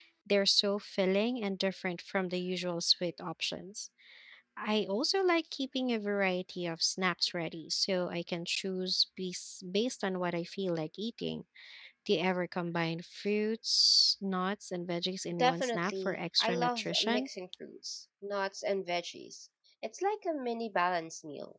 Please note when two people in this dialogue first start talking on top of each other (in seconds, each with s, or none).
15.3 s